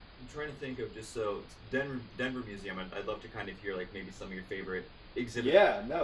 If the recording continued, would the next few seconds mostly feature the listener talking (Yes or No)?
Yes